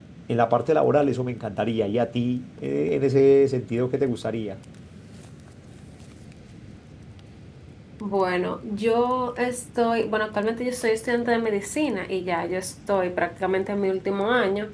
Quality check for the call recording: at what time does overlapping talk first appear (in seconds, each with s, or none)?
none